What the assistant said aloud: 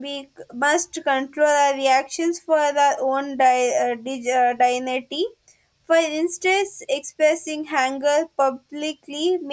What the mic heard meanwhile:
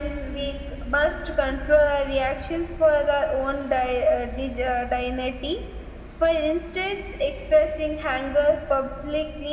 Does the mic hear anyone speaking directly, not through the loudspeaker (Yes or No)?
No